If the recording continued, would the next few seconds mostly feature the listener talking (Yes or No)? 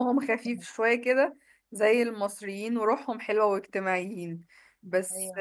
No